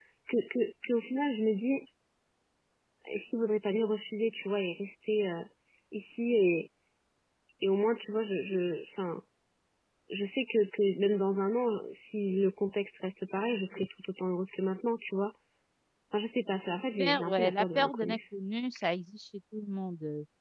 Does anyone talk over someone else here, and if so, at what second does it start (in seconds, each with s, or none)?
17.0 s